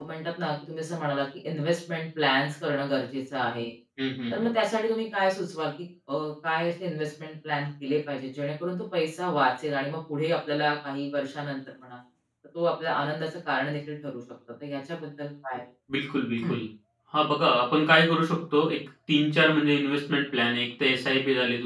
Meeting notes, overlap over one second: none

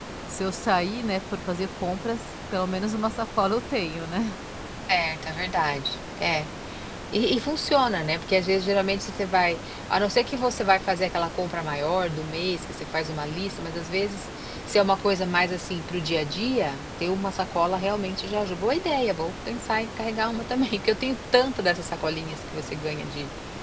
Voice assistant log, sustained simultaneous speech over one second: none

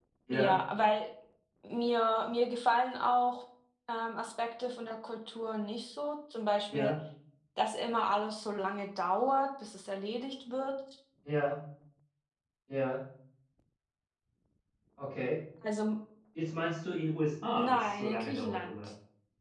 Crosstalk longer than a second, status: present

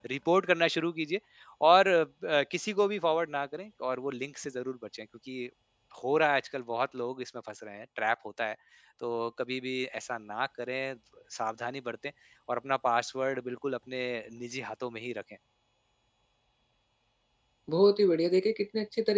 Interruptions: none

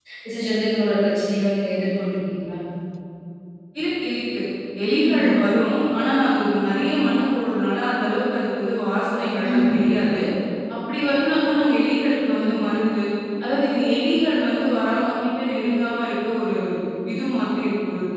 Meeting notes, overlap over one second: none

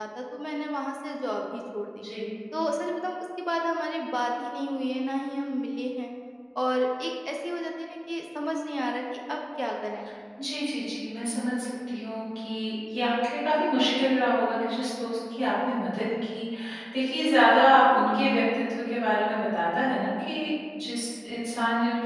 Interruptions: none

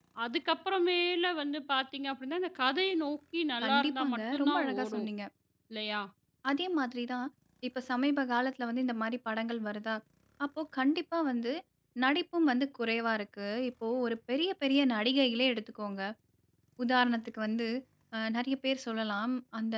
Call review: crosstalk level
present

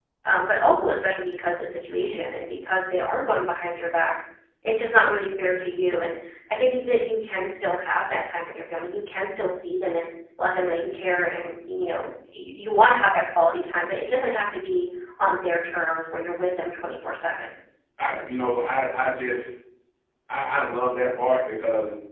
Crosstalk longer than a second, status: none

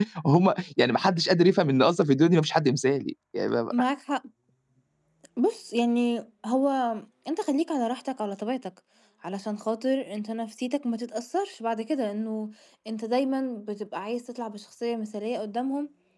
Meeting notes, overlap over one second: none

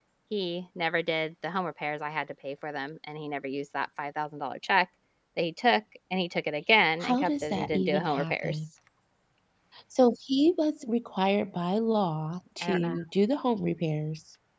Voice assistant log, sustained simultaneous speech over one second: present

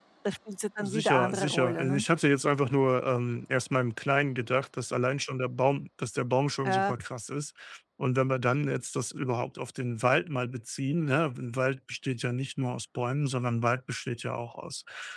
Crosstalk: present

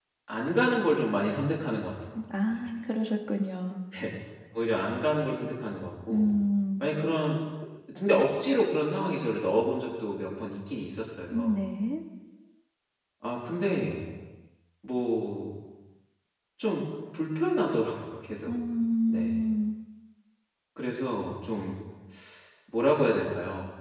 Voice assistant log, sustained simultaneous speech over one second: none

